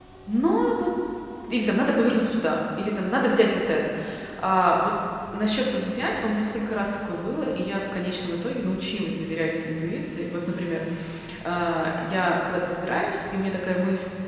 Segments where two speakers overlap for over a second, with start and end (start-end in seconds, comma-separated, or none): none